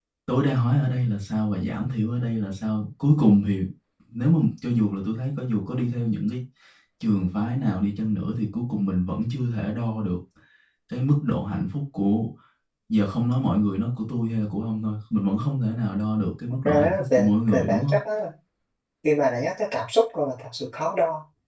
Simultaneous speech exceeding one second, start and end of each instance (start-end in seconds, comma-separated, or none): 16.6-17.9